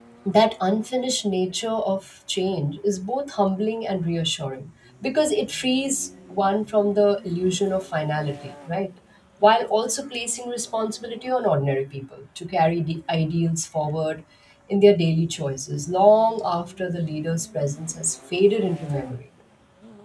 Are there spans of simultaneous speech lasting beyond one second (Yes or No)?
No